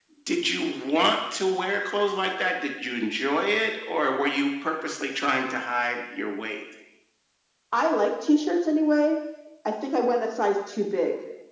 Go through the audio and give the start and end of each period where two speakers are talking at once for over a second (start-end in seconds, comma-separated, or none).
none